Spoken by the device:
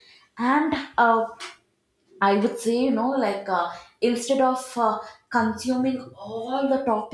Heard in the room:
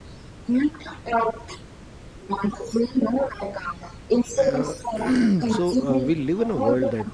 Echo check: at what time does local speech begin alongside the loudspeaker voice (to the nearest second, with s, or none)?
4 s